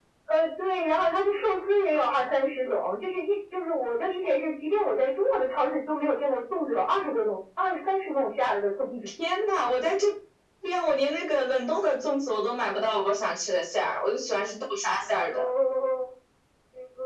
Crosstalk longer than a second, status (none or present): none